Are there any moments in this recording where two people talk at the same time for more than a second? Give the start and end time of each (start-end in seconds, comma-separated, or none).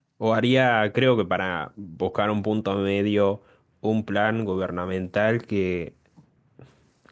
none